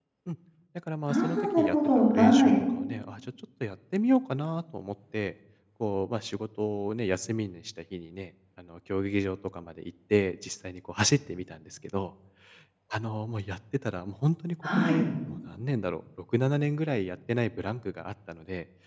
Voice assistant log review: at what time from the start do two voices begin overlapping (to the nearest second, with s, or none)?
1 s